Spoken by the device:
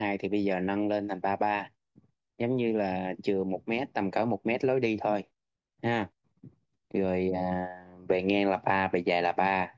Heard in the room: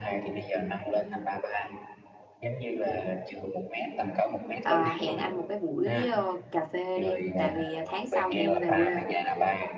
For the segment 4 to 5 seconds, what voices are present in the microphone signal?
both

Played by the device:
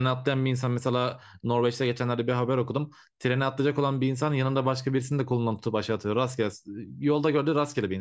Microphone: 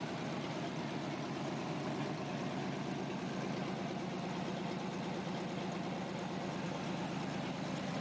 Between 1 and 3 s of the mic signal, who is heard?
neither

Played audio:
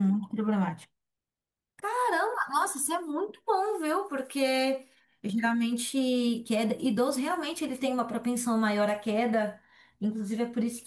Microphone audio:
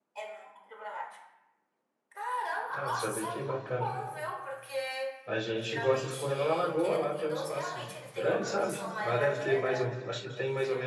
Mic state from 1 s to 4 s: both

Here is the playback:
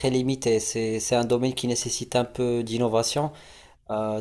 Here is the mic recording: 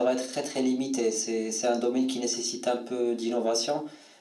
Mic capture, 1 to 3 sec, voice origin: echo only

